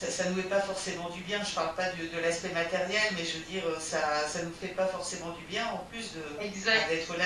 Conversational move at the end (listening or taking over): listening